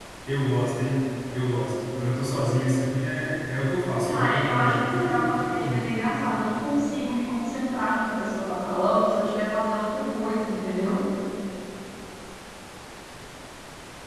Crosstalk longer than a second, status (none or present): present